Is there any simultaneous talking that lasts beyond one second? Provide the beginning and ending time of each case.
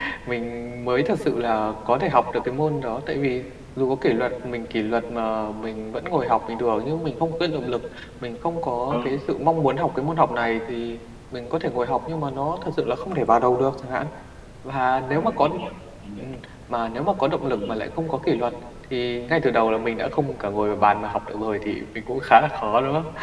none

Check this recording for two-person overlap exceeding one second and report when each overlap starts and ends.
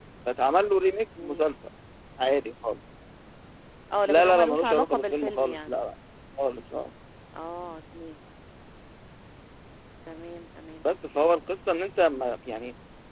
4.1-5.7

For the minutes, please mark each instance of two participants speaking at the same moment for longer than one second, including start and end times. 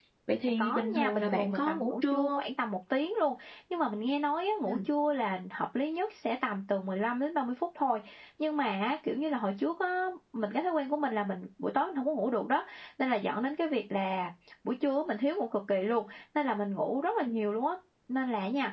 0.6-2.4

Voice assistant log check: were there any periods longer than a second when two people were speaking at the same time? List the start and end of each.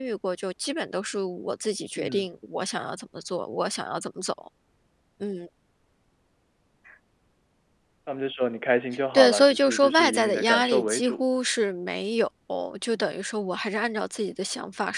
9.2-11.2

